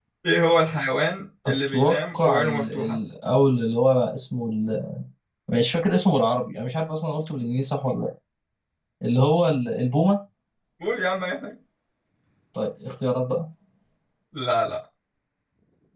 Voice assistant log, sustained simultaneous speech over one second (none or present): present